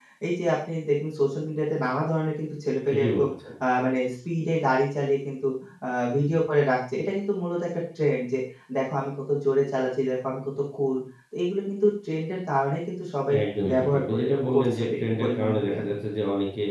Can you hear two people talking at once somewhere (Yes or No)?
Yes